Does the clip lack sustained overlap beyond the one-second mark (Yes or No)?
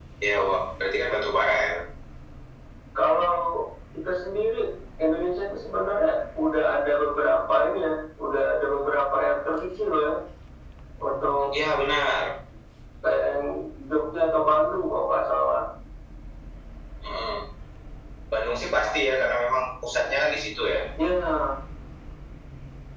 Yes